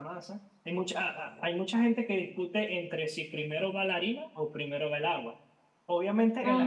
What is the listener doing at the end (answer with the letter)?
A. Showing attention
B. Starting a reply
A